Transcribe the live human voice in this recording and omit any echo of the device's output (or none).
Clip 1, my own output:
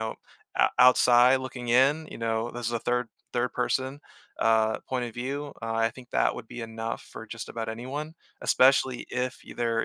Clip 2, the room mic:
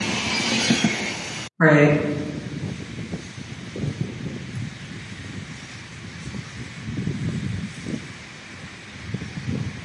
Right.